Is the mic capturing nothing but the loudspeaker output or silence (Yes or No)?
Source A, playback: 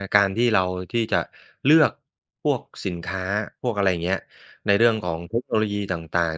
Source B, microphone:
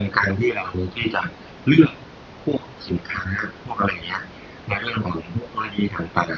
Yes